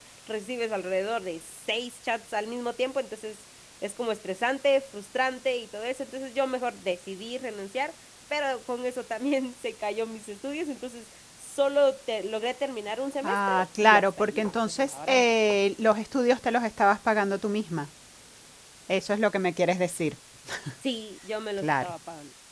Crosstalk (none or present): present